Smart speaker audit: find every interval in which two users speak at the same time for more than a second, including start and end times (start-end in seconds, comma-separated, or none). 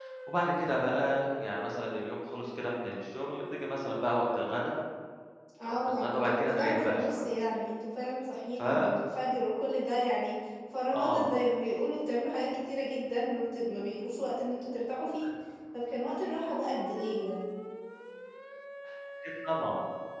5.6-7.3